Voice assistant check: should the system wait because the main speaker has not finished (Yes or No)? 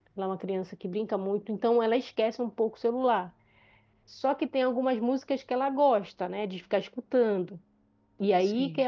Yes